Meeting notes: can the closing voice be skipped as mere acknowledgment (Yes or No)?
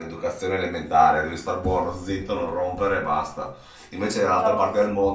Yes